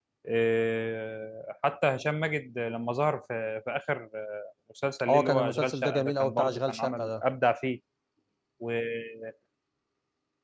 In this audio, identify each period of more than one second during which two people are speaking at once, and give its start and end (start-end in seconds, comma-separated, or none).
5.1-7.2